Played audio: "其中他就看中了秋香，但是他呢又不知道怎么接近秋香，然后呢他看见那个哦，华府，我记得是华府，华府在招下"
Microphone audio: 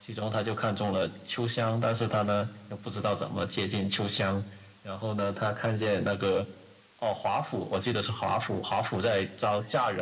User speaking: No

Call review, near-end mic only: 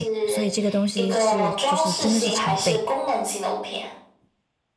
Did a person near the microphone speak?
Yes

